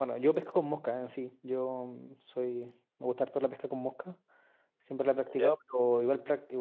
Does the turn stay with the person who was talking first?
Yes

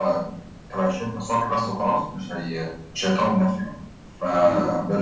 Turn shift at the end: No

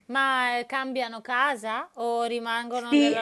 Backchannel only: No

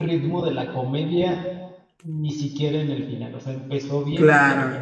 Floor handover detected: No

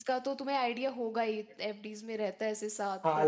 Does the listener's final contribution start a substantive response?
Yes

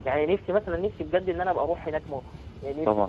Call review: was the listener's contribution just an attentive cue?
Yes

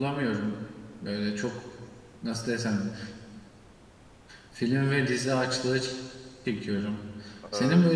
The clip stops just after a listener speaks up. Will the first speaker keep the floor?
Yes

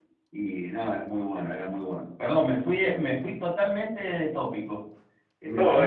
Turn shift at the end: Yes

